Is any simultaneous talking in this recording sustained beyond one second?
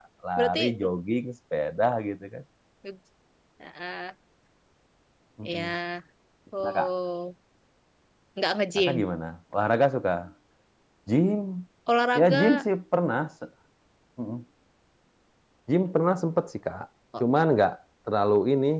No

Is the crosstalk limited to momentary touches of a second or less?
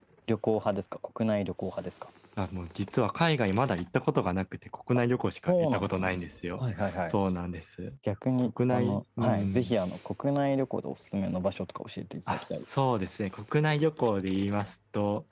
No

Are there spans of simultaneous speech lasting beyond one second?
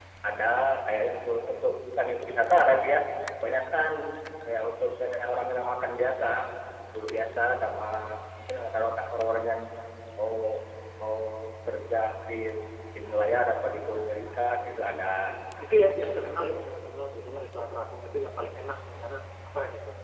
No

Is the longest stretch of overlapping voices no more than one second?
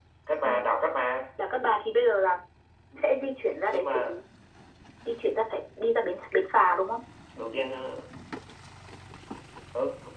Yes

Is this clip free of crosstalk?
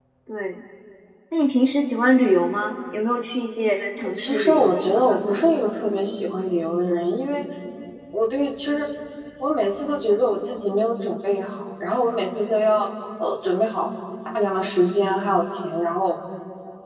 No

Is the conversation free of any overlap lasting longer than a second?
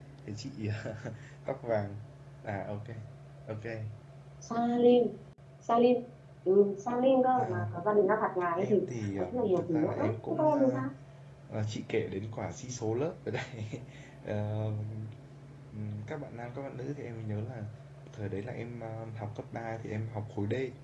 No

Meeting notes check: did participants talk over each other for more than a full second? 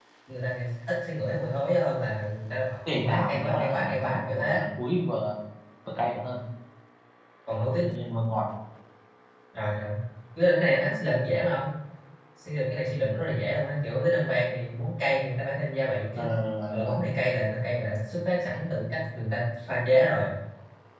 Yes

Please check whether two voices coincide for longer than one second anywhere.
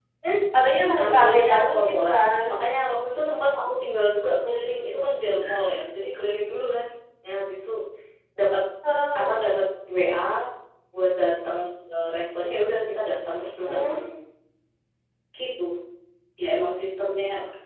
Yes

